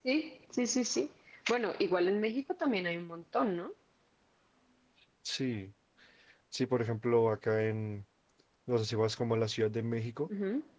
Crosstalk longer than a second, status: none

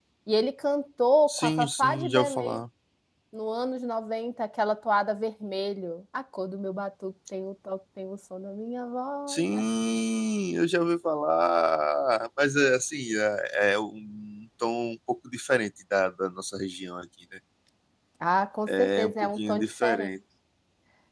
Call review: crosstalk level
present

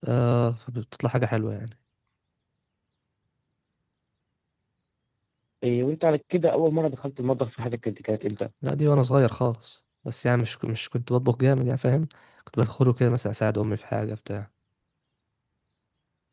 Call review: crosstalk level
none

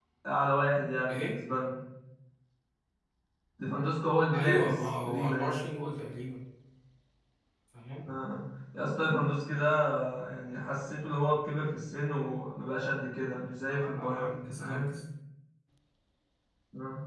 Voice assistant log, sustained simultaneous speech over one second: present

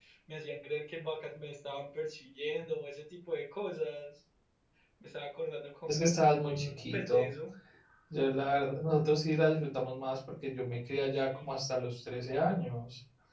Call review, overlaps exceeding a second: present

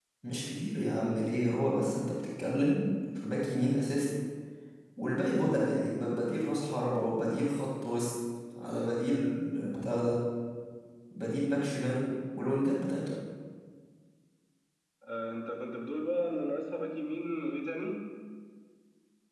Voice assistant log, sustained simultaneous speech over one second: none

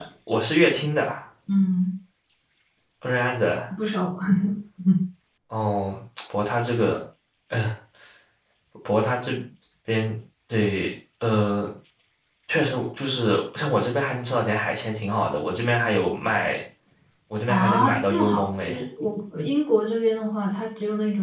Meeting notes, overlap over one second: present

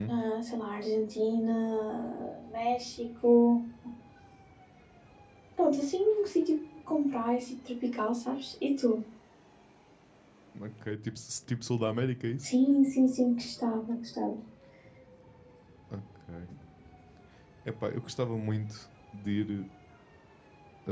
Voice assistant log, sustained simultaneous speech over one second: none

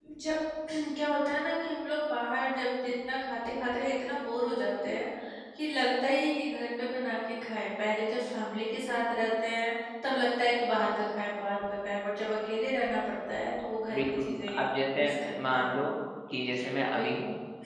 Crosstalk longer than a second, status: present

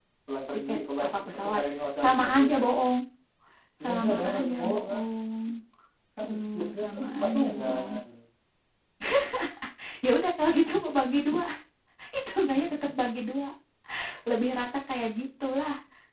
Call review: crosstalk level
present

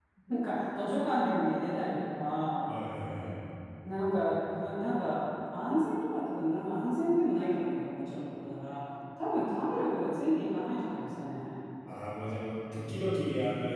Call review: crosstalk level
none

